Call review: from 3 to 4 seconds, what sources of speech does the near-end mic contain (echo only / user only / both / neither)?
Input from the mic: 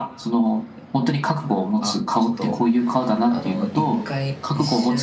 both